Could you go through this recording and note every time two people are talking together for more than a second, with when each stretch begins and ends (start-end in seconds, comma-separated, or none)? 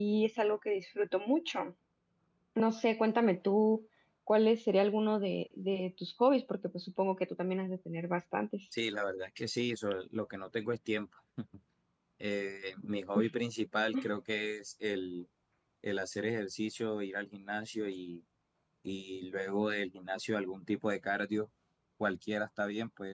none